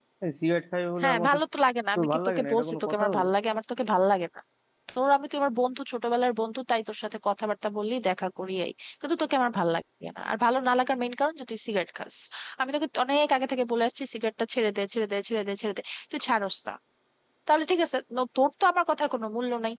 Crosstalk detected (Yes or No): Yes